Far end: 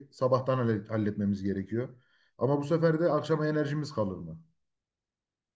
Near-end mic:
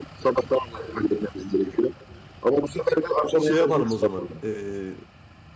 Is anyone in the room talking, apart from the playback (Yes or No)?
Yes